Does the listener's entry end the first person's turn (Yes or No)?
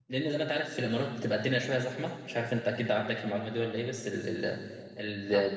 No